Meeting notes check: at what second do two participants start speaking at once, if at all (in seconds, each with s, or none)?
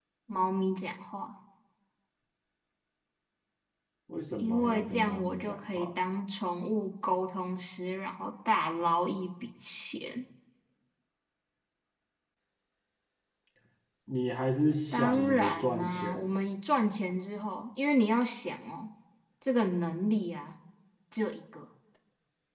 4.4 s